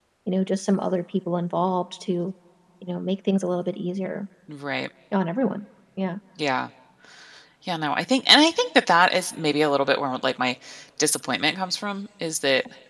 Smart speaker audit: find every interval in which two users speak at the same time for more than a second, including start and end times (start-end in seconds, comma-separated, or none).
none